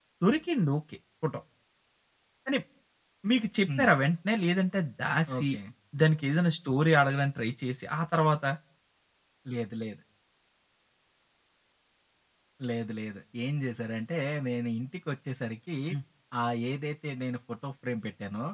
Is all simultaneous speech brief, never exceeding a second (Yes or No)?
Yes